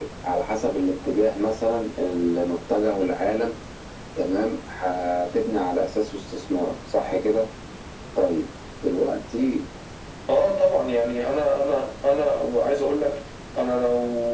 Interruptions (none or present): none